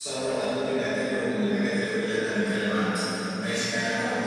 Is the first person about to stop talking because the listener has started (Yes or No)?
No